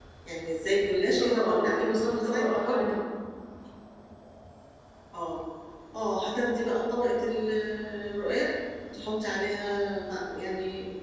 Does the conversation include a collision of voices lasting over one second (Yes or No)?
Yes